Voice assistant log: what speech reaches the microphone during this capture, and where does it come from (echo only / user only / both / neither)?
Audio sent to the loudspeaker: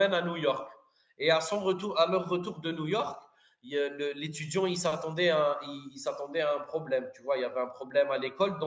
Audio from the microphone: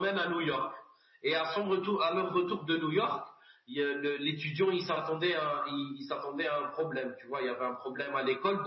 echo only